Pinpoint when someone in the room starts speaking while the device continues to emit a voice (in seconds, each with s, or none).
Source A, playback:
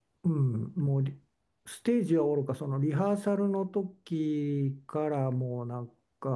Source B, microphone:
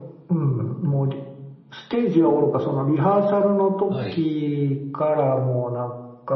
3.9 s